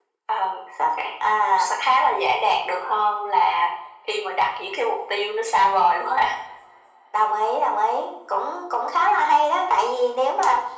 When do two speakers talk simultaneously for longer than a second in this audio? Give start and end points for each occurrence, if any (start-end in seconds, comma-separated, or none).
none